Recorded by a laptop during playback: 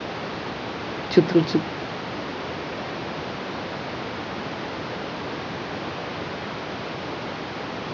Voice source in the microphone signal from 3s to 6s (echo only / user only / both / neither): neither